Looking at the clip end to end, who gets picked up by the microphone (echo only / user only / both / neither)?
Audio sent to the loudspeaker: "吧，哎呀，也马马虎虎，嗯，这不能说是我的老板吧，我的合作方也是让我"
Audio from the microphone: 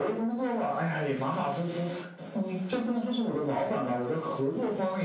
echo only